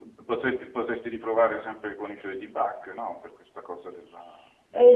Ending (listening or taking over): taking over